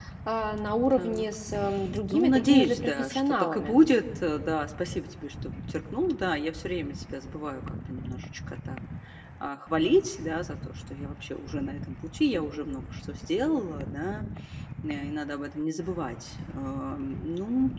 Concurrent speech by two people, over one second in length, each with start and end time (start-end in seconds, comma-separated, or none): 2.1-3.8